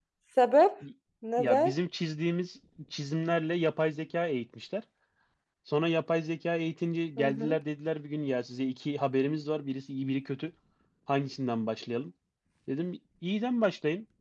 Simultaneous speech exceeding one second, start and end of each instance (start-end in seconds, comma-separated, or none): none